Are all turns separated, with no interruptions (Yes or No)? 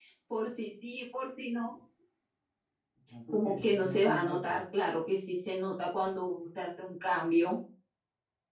No